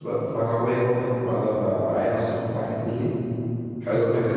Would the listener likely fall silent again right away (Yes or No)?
No